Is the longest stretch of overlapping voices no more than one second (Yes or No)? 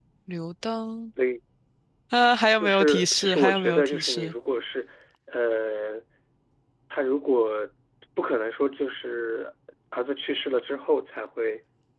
No